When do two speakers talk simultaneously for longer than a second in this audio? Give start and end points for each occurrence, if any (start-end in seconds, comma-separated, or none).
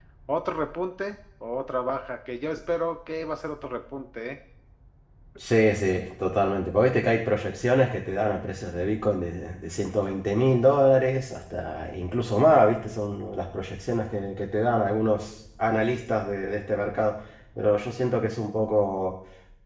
none